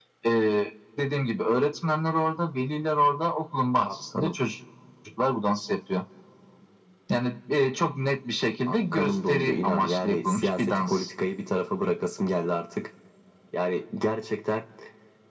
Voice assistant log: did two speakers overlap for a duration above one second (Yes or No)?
Yes